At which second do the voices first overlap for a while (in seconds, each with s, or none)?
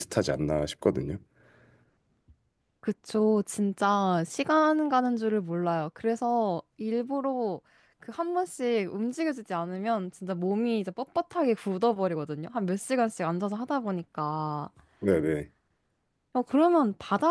none